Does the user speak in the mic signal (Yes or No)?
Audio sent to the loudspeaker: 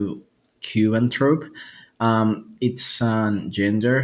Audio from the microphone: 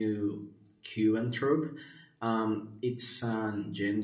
No